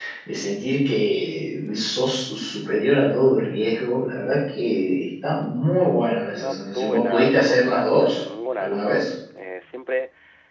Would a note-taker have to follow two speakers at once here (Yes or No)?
Yes